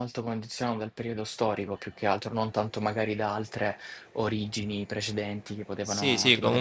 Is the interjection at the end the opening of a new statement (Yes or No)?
Yes